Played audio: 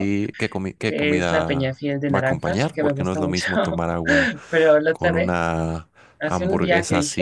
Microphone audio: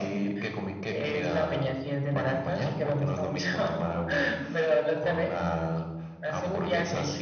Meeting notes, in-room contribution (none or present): none